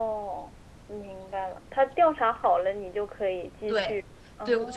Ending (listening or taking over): taking over